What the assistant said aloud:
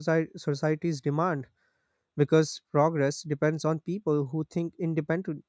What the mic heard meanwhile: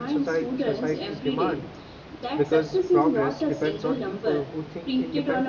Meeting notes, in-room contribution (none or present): present